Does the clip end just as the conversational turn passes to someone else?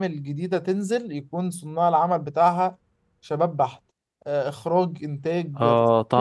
Yes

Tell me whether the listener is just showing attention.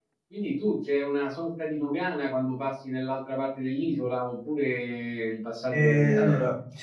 No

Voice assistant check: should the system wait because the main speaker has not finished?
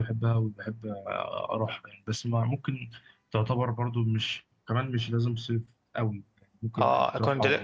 No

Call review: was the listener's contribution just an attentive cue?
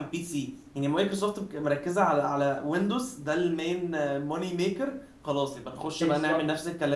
Yes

